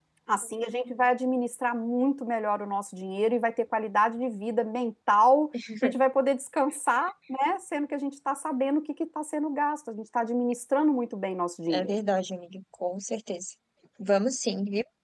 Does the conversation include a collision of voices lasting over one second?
No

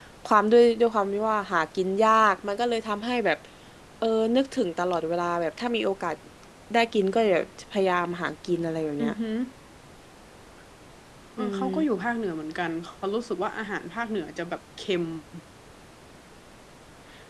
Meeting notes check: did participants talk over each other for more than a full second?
No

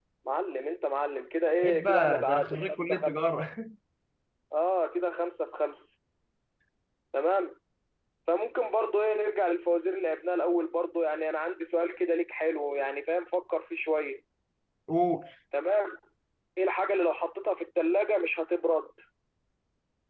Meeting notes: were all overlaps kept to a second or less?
No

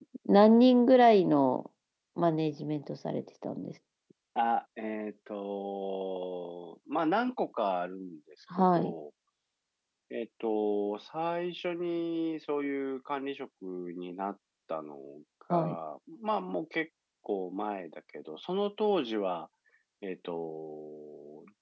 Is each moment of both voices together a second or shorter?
Yes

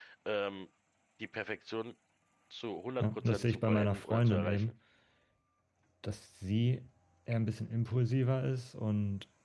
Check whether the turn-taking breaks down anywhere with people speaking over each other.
Yes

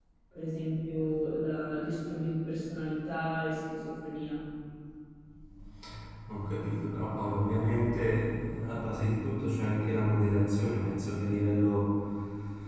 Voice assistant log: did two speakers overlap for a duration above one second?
No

